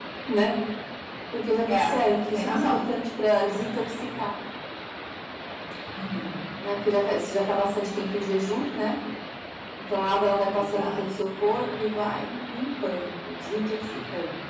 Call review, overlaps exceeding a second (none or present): none